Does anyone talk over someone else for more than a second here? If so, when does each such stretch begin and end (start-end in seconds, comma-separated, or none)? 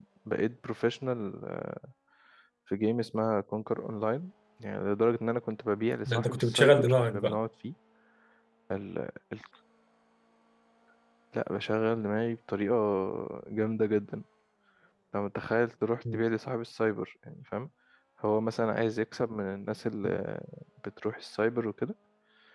6.1-7.4